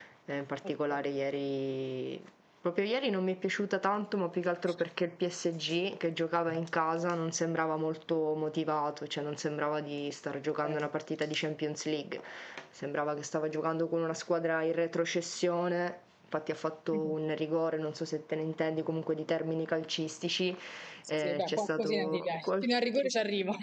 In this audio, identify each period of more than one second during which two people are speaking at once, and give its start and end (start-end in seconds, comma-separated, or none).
21.2-23.1